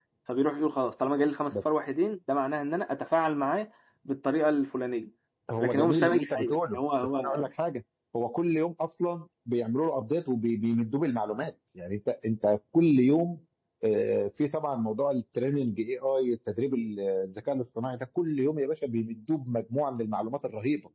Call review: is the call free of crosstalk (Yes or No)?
No